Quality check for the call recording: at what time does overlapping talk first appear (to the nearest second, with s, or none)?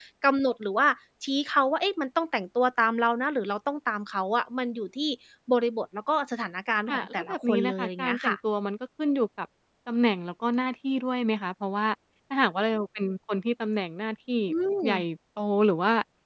7 s